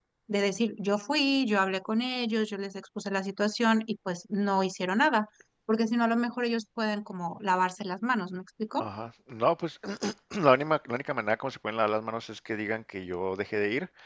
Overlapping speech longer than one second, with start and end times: none

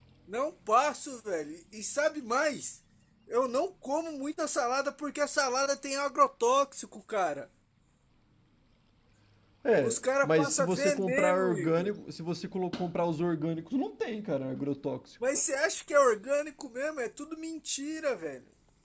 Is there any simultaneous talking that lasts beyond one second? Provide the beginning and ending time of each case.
9.8-11.9

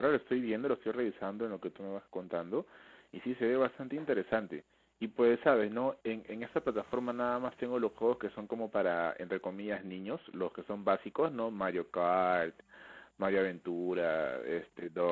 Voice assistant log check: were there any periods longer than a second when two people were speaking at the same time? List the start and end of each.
none

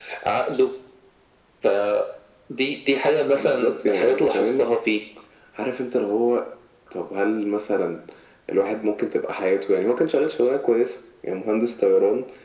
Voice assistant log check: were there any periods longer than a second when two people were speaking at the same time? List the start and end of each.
3.3-4.7

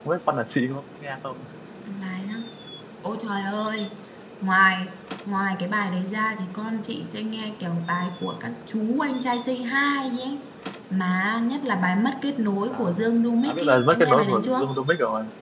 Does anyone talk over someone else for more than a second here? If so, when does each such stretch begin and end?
13.4-14.8

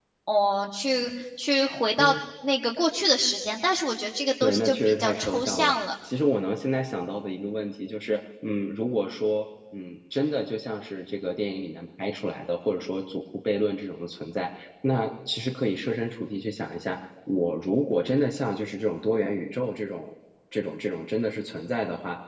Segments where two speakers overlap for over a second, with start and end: 4.4-5.7

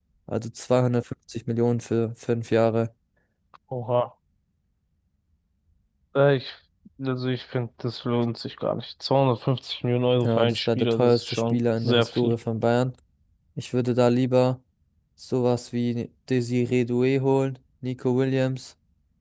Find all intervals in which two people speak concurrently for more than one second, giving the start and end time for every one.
10.2-12.3

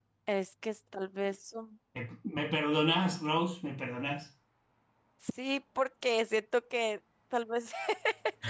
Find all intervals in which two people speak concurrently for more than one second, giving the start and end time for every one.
none

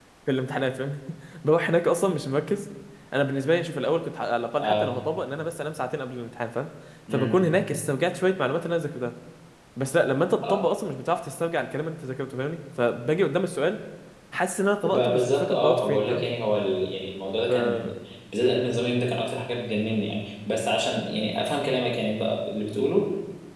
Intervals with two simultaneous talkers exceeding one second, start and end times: 14.8-16.2

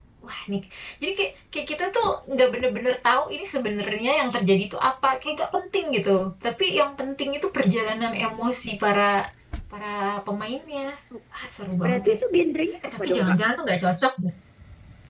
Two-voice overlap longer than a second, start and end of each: none

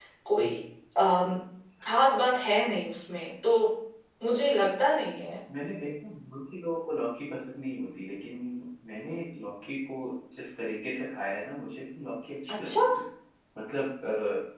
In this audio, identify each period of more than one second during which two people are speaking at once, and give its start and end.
none

